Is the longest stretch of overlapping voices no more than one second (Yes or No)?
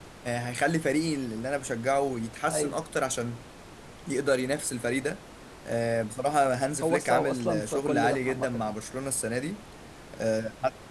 No